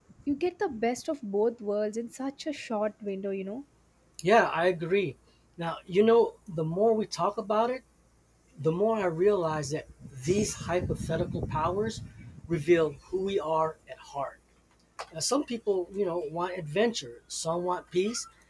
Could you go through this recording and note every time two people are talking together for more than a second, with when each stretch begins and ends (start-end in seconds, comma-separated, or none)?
none